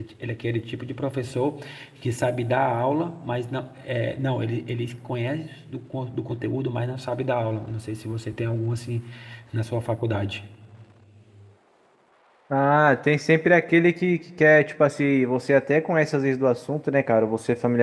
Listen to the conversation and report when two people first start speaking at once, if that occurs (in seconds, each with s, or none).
none